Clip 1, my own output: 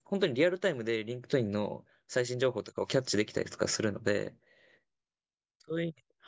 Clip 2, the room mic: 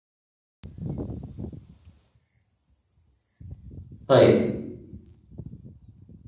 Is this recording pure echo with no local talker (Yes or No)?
No